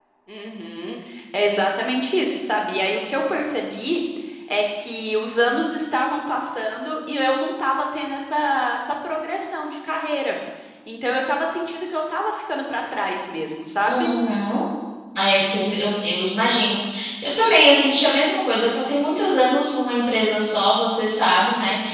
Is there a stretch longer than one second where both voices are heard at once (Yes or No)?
No